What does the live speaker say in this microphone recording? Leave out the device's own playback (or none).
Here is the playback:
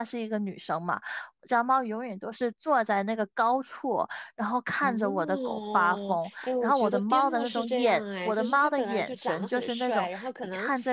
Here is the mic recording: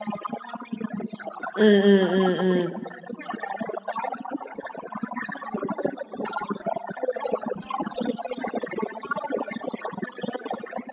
嗯嗯嗯嗯，